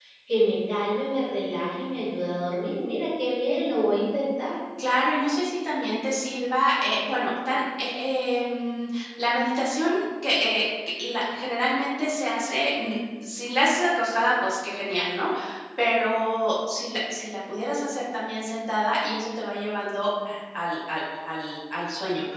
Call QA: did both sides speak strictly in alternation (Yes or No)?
Yes